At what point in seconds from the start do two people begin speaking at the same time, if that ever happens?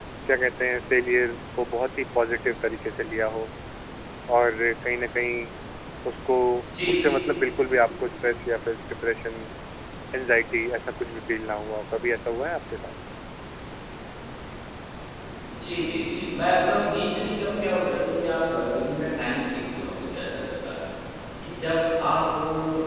none

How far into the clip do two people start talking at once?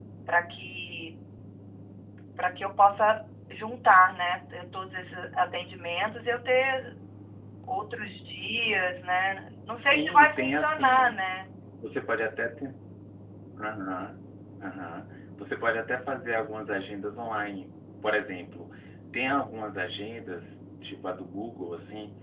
9.7 s

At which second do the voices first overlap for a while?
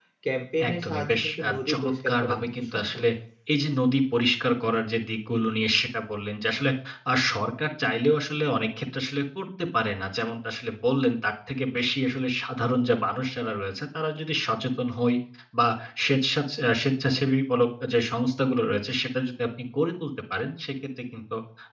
0.7 s

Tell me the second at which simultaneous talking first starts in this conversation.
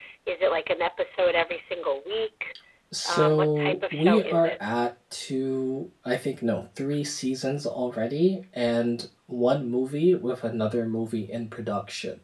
3.0 s

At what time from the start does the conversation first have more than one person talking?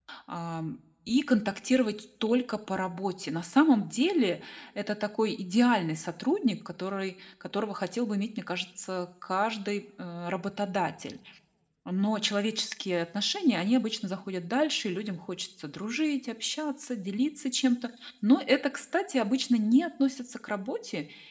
none

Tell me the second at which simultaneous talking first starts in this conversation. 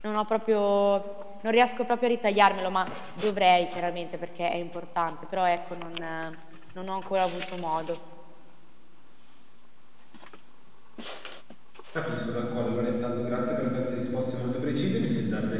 none

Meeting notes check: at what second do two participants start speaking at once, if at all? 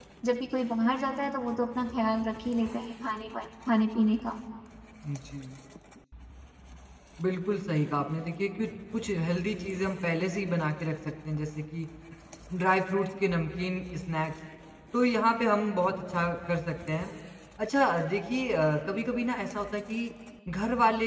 none

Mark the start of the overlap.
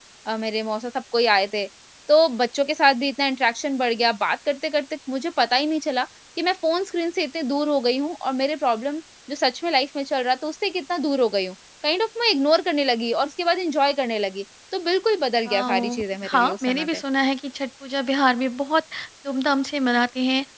15.5 s

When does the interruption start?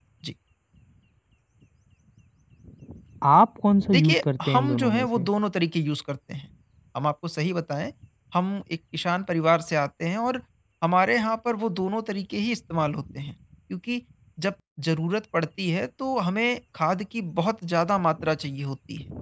3.9 s

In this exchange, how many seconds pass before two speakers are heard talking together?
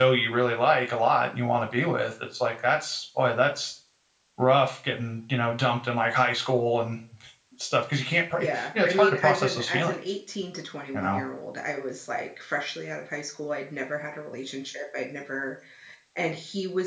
8.4 s

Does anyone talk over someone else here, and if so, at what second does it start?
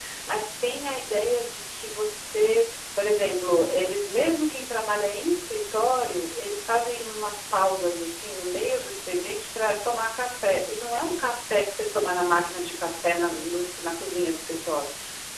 none

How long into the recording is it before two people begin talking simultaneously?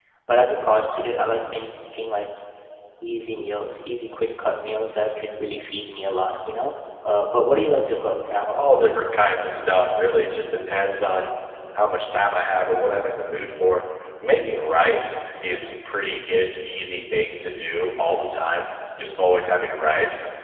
none

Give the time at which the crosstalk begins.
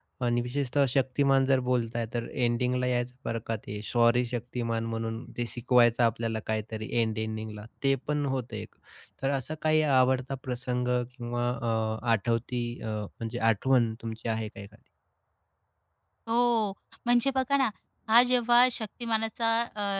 none

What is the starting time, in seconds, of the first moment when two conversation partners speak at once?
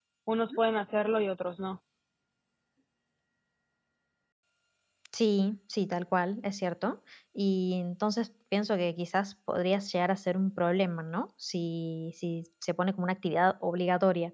none

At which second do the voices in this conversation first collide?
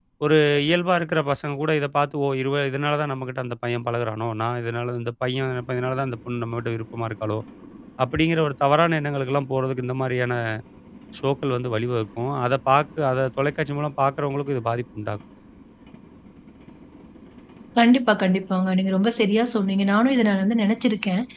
none

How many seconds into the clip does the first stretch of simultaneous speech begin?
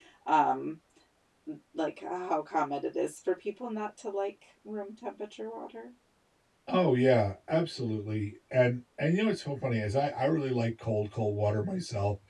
none

